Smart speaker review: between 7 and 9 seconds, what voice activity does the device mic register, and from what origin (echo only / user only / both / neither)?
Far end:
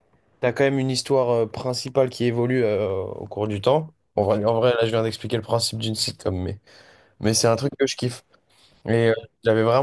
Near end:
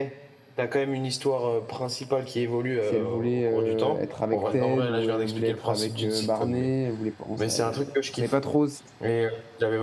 both